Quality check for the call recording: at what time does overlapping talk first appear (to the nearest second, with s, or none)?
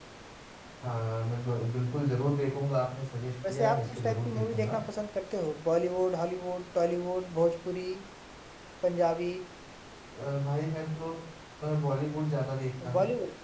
3 s